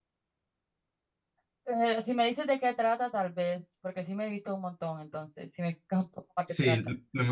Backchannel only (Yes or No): No